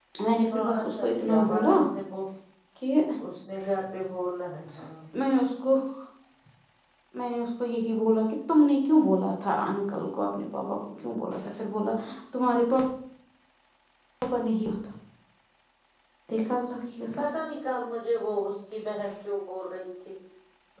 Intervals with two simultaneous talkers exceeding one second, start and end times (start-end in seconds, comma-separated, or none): 0.5-1.8